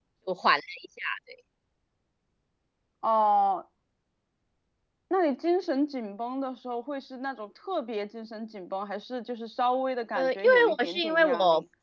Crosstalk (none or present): present